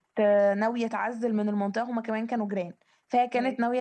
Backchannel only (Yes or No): Yes